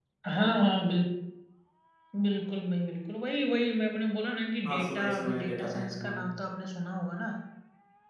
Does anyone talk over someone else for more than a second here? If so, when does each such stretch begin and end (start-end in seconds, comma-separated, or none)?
4.7-6.2